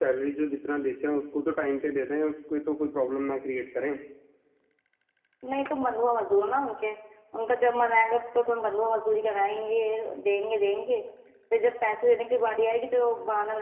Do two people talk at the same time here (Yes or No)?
No